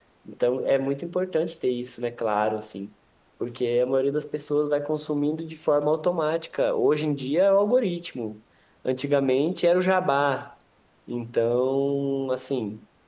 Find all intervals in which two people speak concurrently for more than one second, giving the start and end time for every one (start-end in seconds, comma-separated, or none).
none